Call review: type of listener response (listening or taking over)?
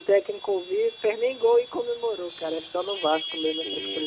taking over